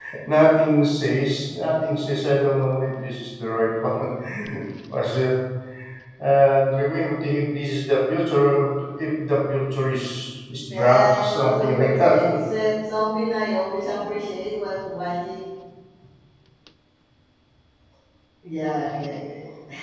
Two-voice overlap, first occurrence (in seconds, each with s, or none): 10.7 s